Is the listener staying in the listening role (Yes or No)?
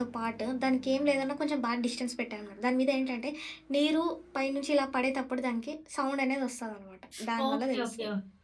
No